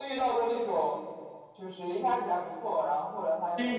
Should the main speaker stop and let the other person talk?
Yes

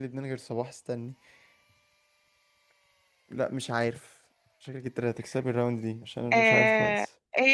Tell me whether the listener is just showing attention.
No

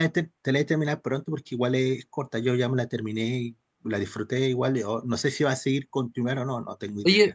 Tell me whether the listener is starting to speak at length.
Yes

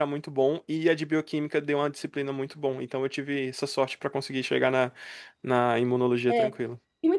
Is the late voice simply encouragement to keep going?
No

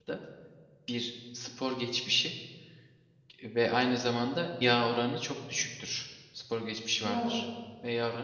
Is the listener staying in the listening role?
Yes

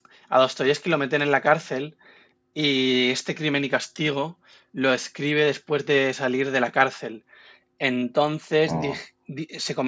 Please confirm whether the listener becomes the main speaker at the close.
No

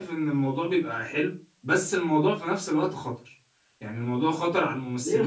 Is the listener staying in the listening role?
No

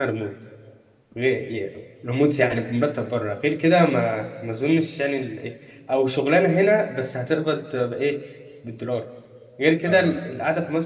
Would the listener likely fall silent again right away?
Yes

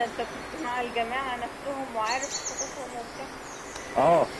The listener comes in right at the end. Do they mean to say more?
Yes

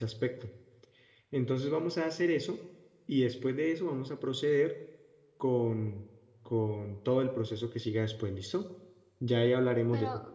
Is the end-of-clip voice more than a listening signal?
No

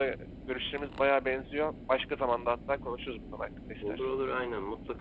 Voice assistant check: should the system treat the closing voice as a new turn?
Yes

